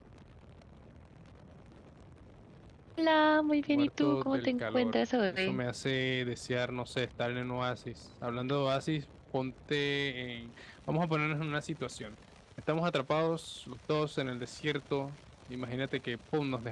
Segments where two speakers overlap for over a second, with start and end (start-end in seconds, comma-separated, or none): 3.7-5.6